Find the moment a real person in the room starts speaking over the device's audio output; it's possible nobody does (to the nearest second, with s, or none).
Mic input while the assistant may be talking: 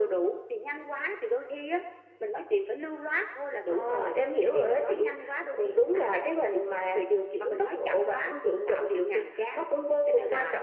none